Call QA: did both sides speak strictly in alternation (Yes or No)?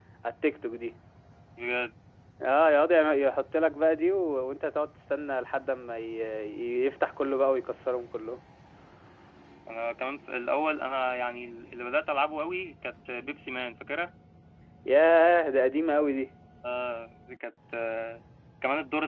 Yes